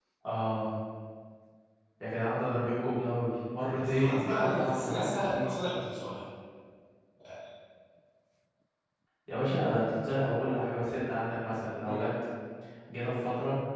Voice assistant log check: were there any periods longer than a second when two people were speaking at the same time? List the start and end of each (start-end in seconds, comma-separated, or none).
3.8-5.3